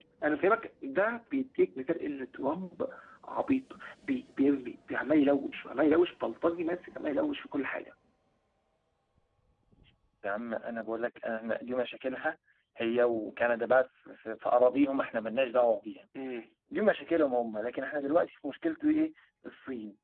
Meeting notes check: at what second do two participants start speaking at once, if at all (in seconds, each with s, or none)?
none